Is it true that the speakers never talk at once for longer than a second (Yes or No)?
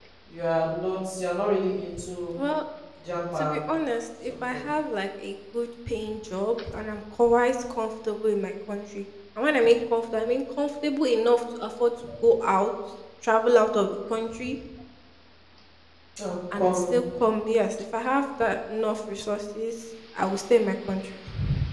Yes